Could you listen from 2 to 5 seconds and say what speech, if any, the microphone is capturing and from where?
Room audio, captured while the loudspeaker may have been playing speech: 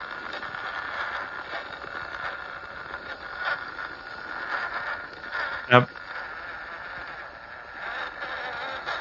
neither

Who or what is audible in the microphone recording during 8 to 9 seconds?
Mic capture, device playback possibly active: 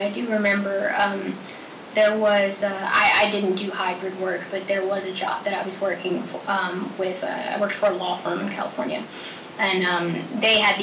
echo only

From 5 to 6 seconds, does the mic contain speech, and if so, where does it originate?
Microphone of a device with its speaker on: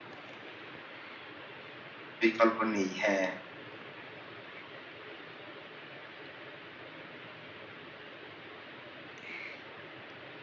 neither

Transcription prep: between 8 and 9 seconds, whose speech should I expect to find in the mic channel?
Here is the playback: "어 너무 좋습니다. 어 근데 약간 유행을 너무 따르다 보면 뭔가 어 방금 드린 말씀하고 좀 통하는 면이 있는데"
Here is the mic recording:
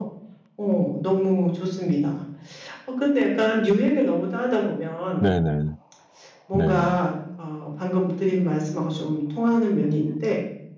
echo only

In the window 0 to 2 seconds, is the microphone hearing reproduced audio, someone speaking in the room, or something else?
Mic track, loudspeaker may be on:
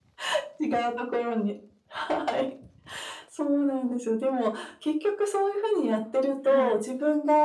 echo only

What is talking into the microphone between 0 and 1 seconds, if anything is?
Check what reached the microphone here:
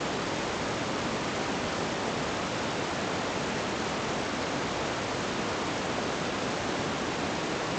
neither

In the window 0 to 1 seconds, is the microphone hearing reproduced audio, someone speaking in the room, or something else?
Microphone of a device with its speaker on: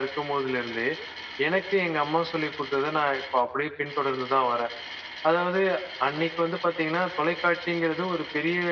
echo only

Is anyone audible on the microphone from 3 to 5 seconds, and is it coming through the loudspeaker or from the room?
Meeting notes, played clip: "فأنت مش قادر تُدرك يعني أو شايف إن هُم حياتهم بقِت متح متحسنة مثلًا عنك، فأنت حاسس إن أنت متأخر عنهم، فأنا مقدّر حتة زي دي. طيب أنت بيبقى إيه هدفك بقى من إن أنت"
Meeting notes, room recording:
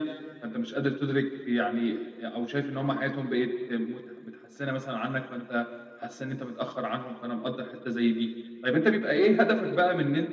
echo only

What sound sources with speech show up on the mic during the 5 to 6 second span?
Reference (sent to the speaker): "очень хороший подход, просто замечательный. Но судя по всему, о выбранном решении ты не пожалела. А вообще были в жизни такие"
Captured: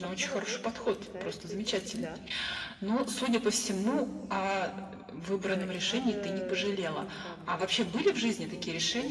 both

